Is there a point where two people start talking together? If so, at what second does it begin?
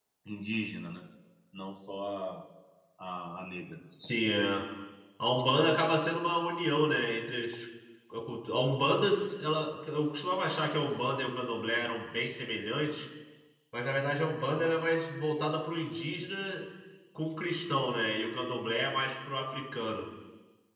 none

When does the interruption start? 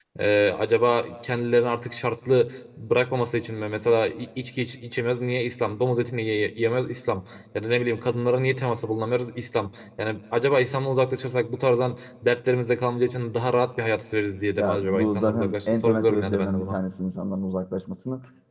14.6 s

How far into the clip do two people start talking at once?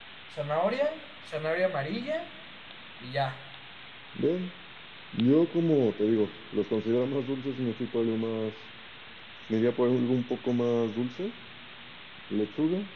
none

